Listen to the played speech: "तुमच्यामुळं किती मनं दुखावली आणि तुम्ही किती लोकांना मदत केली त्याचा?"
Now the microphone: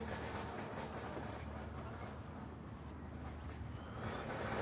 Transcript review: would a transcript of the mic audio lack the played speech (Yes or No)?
Yes